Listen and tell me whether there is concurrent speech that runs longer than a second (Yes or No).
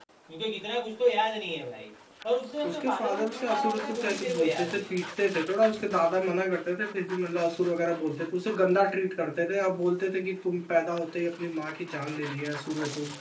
Yes